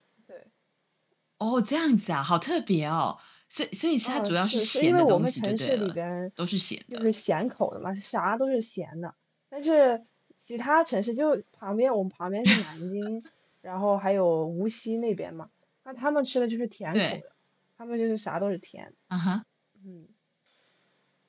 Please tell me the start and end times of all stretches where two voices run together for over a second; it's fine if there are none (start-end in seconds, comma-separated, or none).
4.0-6.0